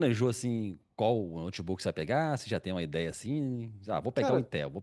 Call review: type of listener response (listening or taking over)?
listening